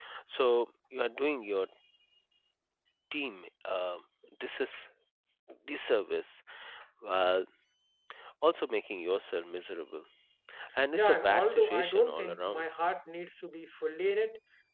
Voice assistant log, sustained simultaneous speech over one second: present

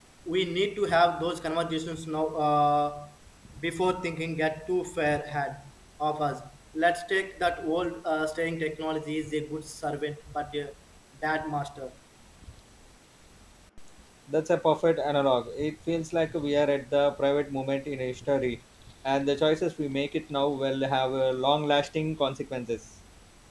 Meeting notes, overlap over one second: none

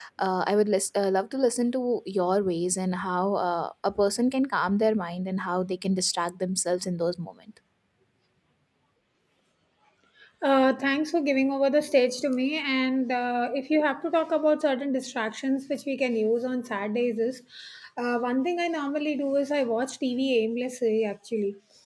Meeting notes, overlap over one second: none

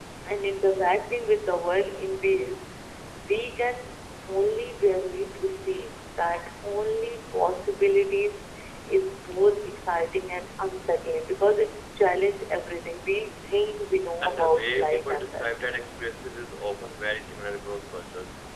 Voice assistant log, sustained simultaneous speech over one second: present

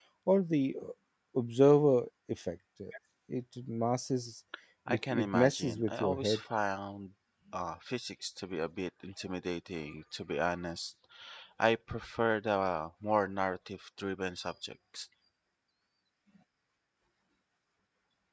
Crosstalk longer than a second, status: present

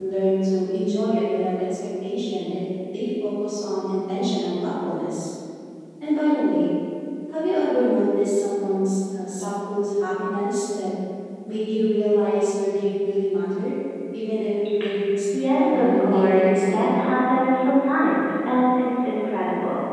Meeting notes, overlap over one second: present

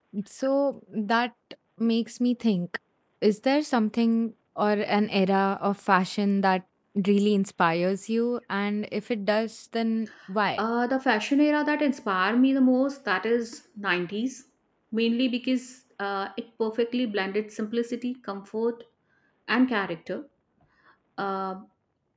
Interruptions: none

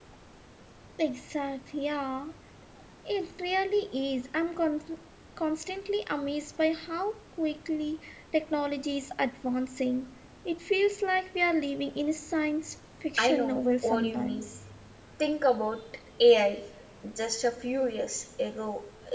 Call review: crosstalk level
present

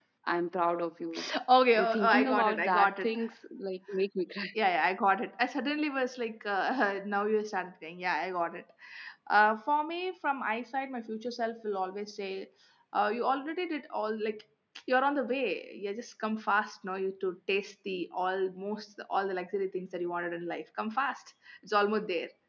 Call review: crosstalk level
present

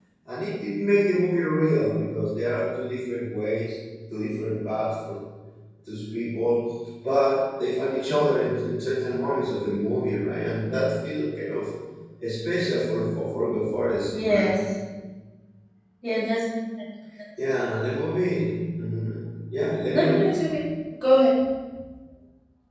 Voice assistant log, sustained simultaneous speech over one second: none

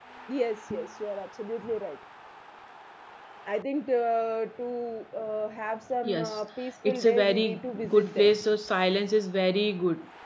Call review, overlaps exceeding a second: present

